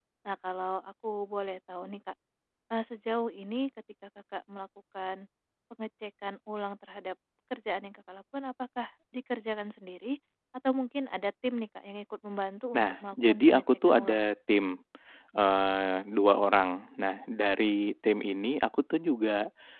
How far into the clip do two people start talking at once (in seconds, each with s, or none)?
12.7 s